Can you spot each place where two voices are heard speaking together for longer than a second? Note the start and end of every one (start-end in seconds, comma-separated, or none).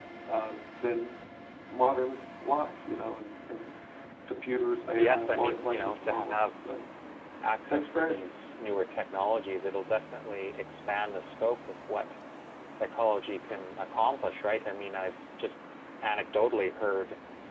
5.0-6.5